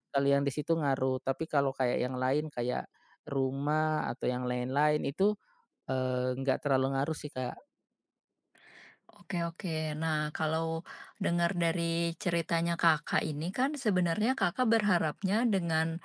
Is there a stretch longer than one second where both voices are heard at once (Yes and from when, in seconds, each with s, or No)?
No